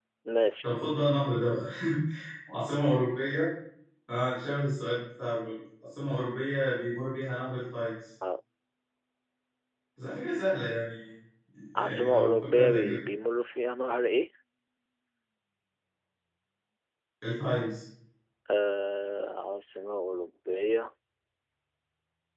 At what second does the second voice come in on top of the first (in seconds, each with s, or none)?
11.8 s